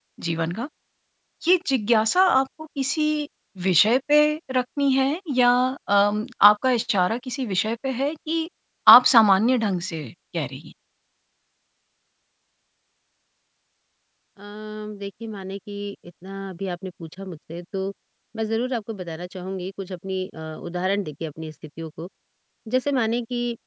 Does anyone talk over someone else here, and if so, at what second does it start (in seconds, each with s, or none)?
none